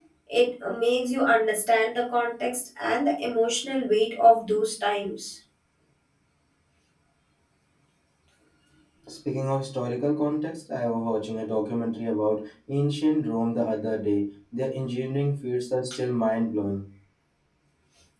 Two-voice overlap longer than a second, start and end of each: none

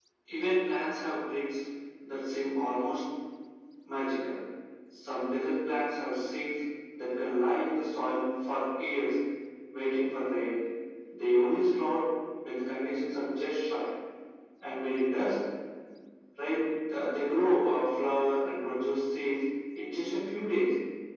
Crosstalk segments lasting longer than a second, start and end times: none

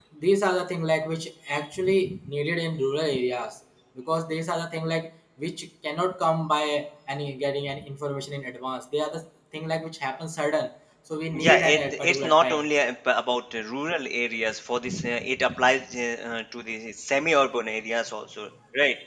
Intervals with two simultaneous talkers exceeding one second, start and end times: 11.4-12.7

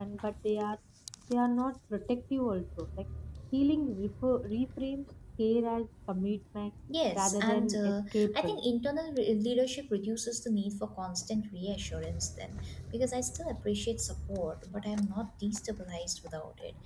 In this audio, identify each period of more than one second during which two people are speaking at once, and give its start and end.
7.2-8.6

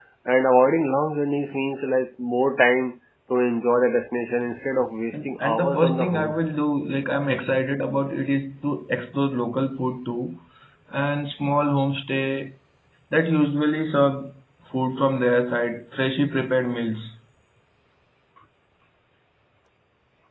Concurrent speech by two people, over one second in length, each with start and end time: 5.1-6.4

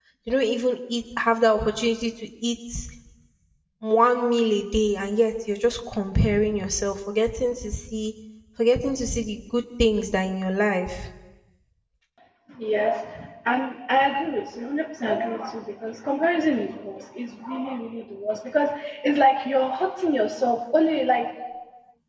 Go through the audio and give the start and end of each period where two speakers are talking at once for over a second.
none

